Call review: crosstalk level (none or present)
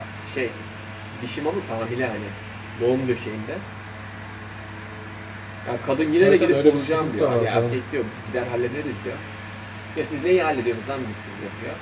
present